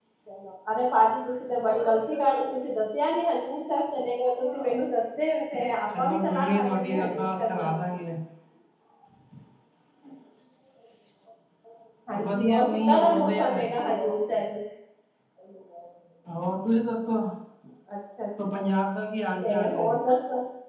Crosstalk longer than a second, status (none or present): present